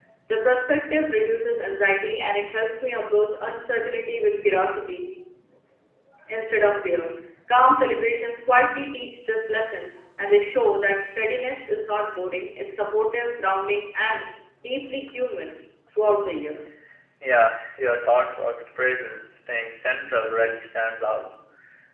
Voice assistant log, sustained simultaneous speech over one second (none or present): none